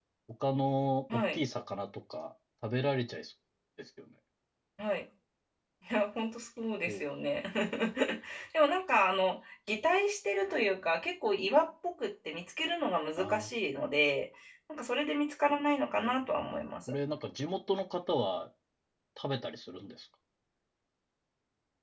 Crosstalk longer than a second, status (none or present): none